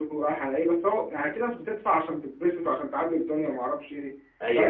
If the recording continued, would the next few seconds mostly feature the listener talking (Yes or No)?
Yes